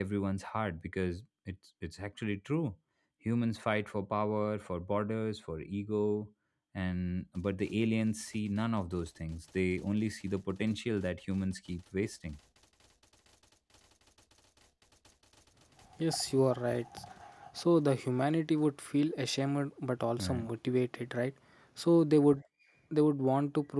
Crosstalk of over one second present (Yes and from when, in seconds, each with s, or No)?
No